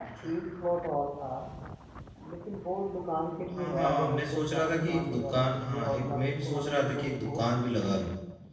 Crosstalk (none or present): present